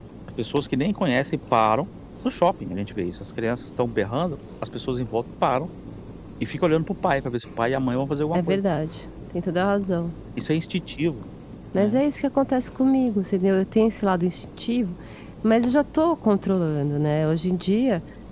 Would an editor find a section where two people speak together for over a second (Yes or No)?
No